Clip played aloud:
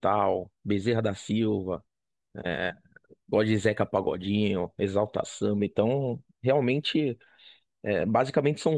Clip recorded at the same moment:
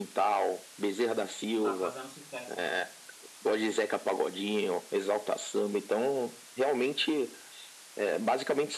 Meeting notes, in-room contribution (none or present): present